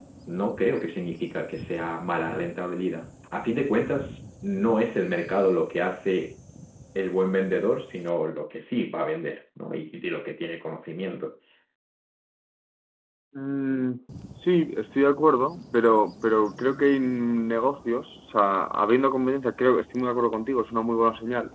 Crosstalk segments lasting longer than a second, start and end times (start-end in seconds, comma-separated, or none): none